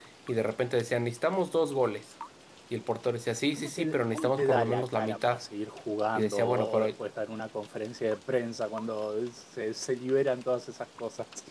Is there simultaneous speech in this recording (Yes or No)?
Yes